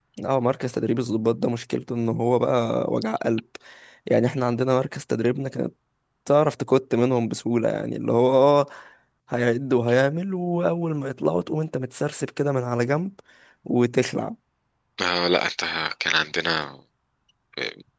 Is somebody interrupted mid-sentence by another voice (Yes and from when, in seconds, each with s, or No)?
No